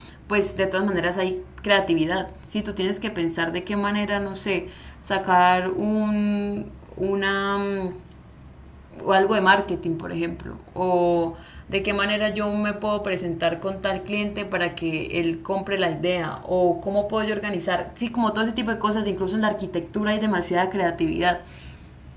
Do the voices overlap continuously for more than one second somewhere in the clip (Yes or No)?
No